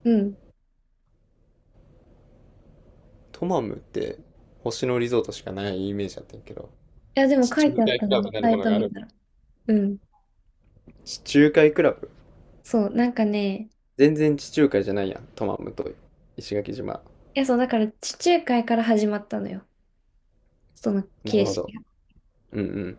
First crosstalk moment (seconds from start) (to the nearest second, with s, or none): 7 s